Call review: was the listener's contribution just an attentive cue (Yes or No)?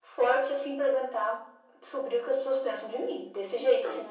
Yes